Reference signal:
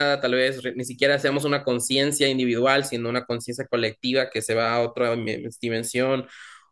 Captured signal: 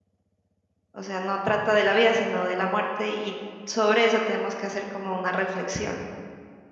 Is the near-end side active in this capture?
Yes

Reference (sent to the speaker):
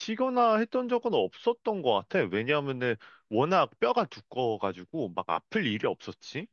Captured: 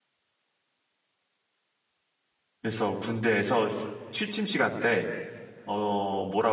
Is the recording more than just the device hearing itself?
Yes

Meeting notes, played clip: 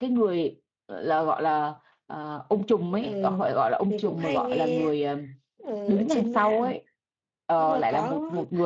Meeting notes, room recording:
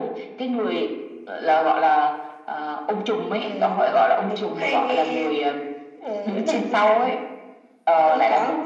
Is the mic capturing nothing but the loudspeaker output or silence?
Yes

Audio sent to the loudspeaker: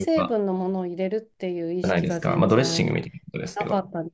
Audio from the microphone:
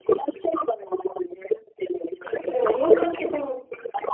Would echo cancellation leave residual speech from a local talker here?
Yes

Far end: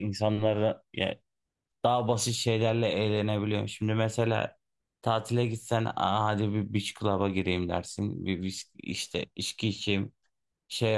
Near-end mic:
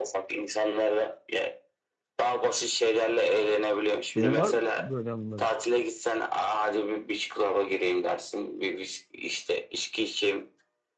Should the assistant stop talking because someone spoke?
Yes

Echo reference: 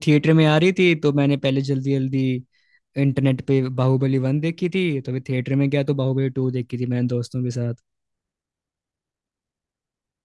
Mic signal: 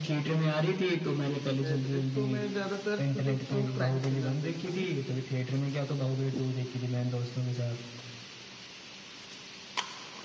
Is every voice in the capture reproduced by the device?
No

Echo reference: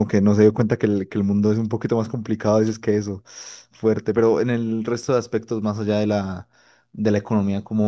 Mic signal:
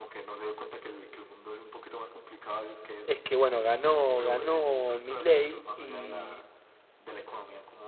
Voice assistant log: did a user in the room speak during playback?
Yes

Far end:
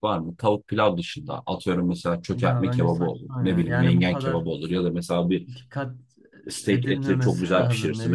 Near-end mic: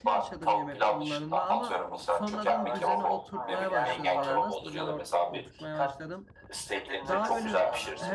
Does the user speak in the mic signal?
Yes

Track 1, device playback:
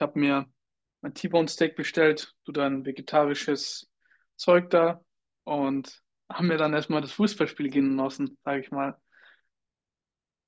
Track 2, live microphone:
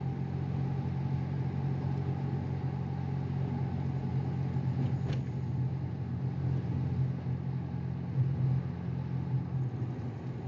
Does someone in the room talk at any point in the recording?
No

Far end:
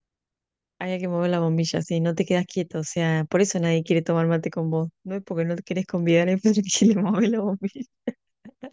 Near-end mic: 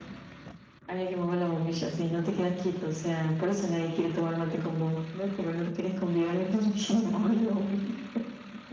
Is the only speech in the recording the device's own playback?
Yes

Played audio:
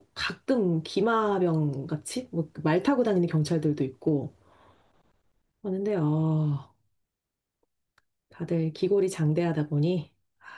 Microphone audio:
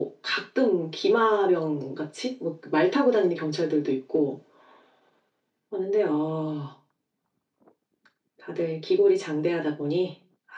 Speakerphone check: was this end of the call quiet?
Yes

